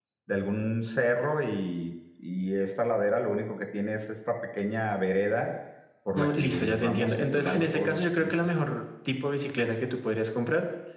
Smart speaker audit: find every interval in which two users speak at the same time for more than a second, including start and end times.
6.2-8.3

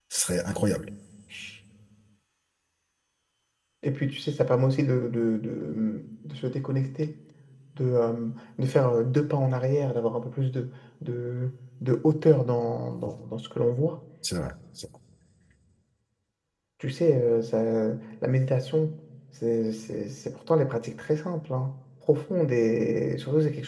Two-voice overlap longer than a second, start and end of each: none

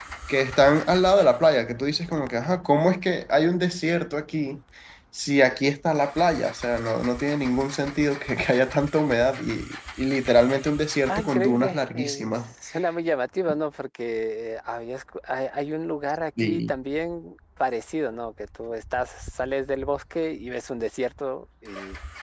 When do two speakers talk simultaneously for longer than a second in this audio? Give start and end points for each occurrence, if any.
11.1-12.5

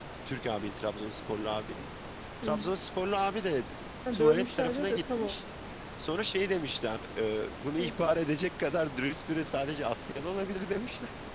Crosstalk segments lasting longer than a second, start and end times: 4.1-5.4

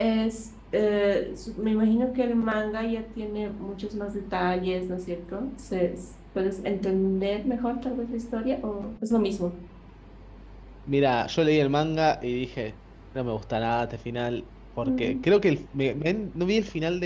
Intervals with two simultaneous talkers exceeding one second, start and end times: none

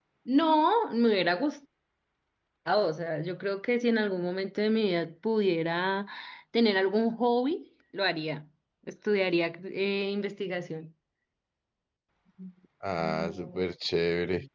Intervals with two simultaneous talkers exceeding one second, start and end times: none

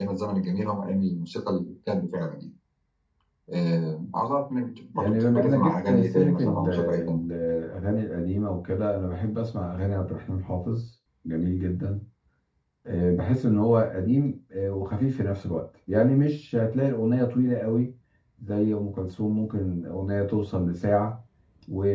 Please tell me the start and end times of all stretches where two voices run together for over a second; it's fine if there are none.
5.0-7.2

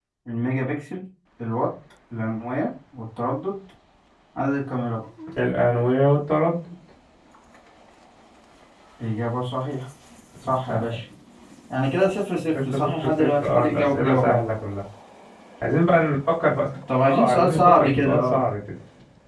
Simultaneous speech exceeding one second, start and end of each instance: 12.7-14.4, 17.0-18.4

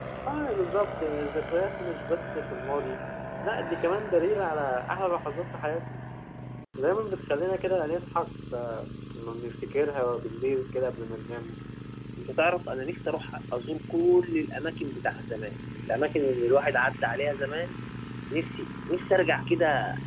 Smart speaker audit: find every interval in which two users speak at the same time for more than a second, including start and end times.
none

